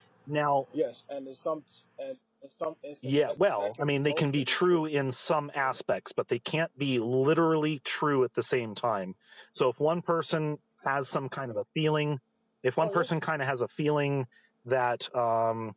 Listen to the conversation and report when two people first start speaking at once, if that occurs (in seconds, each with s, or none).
3.0 s